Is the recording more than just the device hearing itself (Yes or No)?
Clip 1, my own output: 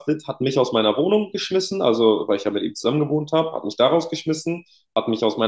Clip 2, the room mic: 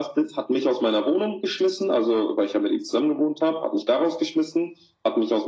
No